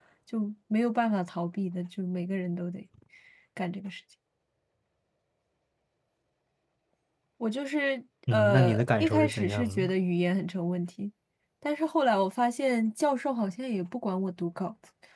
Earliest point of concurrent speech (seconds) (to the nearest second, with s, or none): 8 s